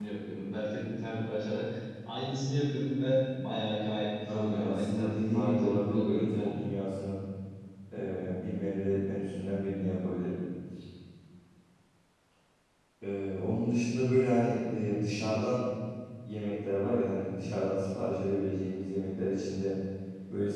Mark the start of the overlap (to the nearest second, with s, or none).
4 s